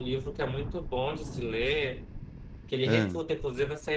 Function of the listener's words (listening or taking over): listening